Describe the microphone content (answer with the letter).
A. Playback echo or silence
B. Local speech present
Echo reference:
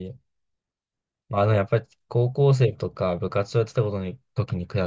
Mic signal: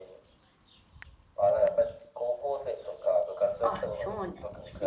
B